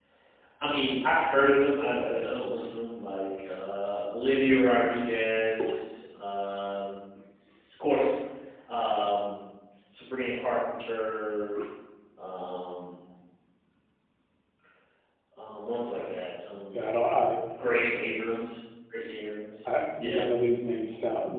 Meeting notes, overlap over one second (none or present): none